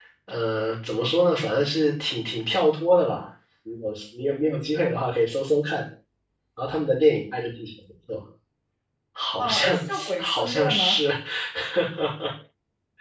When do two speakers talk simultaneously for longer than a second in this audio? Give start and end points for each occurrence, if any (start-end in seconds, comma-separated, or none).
9.4-11.0